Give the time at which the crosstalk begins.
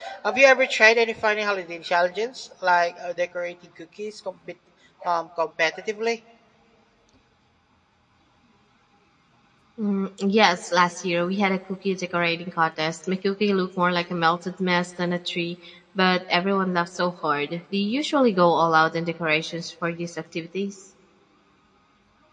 none

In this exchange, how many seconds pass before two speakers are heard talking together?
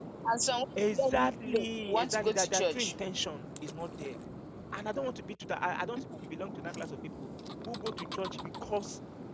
0.9 s

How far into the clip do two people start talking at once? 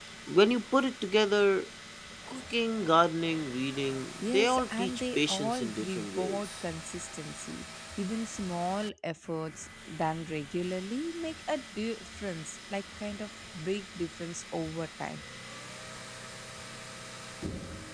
4.0 s

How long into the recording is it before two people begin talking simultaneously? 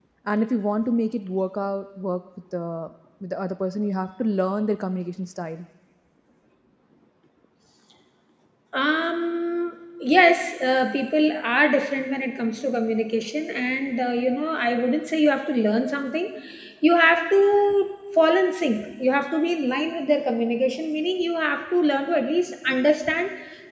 none

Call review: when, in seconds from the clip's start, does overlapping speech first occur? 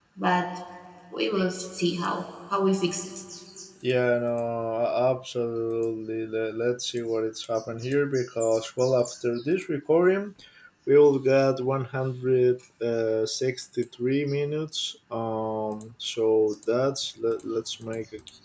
none

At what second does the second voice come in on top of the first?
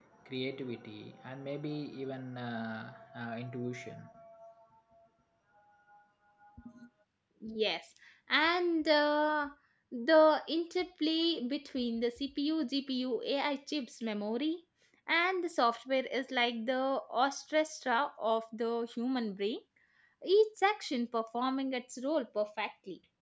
none

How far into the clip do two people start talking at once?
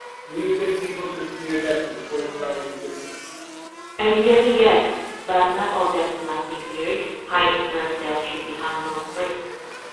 none

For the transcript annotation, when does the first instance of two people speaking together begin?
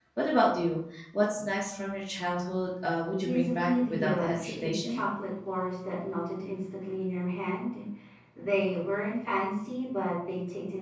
3.2 s

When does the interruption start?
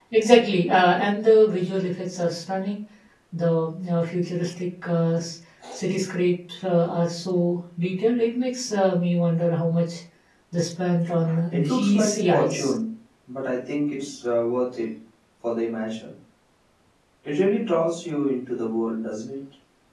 11.2 s

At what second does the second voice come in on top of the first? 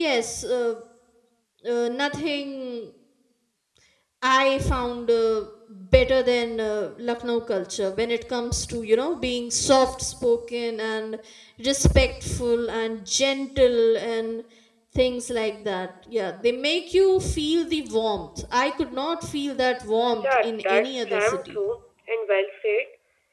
20.2 s

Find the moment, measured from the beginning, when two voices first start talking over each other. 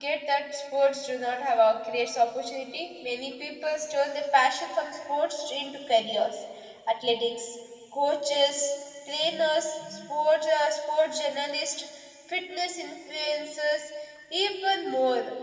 none

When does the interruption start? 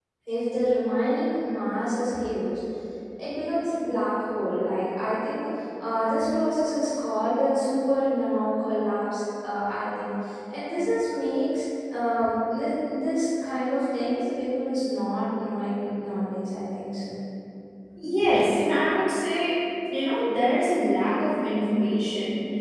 none

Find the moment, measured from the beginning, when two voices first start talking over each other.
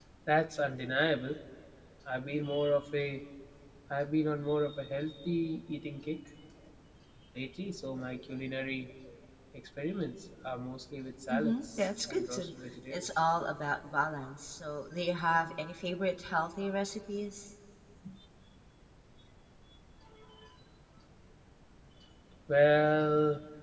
11.3 s

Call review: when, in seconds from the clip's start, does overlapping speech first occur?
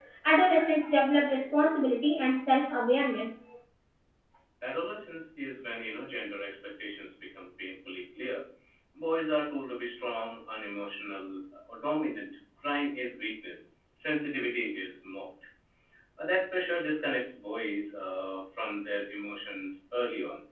none

